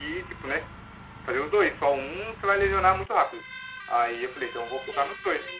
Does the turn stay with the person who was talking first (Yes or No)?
Yes